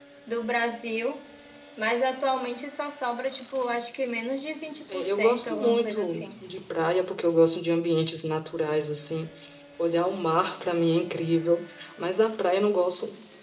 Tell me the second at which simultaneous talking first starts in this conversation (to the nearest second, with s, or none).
5 s